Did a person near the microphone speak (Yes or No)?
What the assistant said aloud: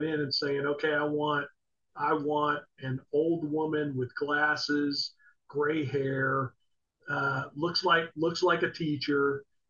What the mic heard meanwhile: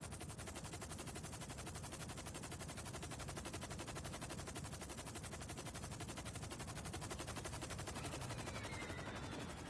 No